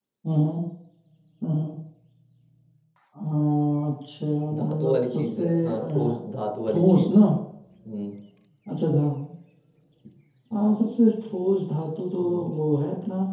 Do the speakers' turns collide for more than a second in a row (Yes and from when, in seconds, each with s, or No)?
Yes, from 4.5 s